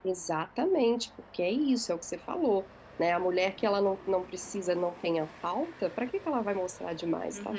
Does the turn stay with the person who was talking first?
No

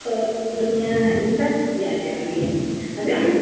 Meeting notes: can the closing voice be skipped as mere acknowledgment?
Yes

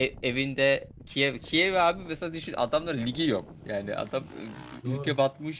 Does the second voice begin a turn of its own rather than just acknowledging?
No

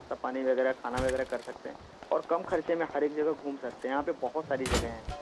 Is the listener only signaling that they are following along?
Yes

